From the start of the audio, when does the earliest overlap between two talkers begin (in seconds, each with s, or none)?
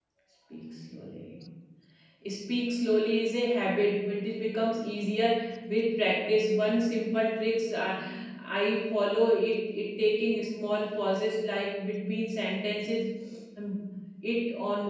none